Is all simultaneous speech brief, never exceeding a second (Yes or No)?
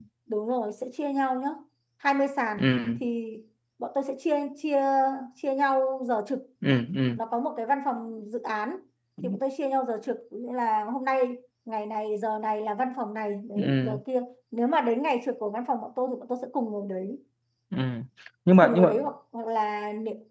Yes